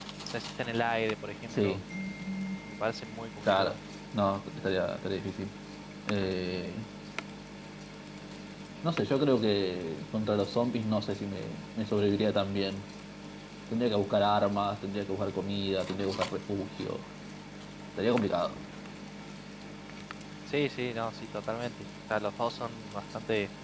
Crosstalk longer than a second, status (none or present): none